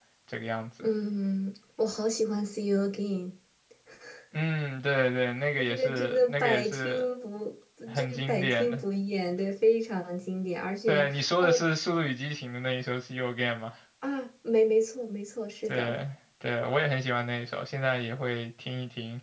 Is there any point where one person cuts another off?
Yes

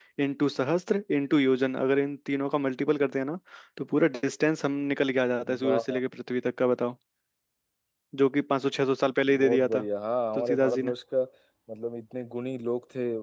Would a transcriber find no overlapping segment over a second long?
Yes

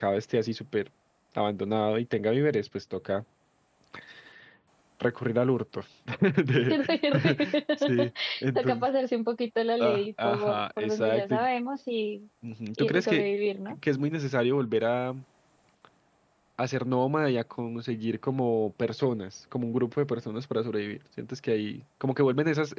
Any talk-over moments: Yes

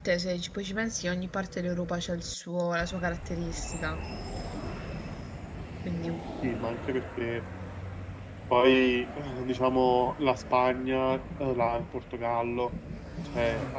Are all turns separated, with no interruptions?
Yes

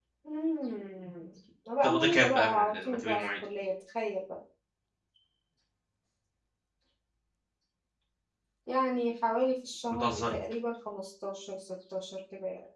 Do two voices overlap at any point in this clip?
Yes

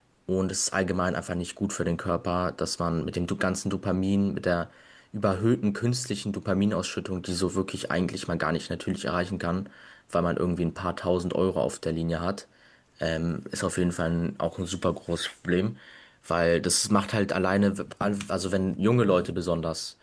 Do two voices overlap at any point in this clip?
No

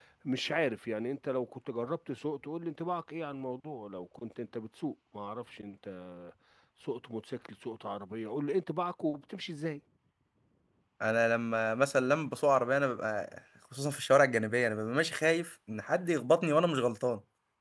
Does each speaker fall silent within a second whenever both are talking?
Yes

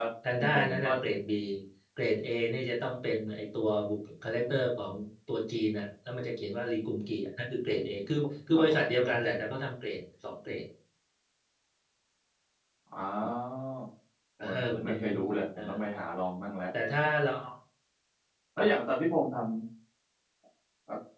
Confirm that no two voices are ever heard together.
No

